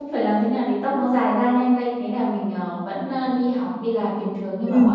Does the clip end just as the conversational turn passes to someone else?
No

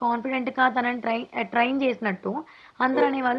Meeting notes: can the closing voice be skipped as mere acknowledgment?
Yes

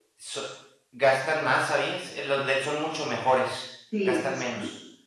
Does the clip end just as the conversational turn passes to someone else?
Yes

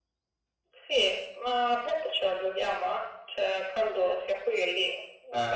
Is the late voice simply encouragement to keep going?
Yes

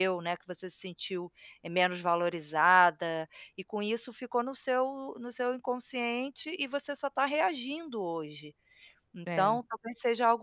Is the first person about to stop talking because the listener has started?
No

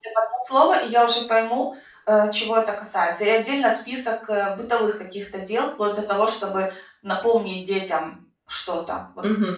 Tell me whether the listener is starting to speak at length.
Yes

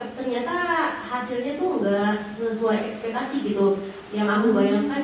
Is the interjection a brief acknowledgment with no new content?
Yes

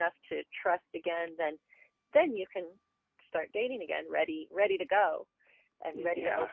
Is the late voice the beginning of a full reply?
Yes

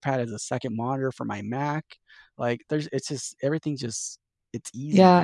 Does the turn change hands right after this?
Yes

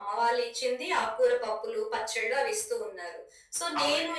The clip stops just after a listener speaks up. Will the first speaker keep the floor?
Yes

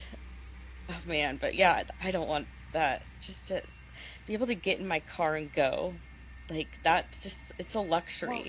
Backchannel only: No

